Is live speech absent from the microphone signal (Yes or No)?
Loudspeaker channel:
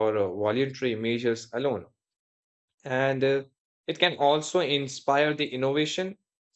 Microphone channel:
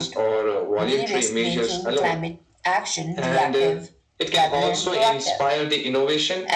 No